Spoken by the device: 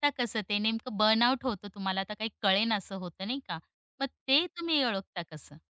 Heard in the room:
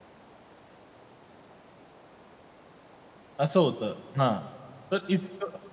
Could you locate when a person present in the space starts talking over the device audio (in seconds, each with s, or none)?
3.4 s